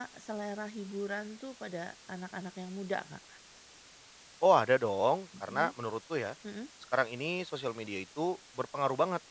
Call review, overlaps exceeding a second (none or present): none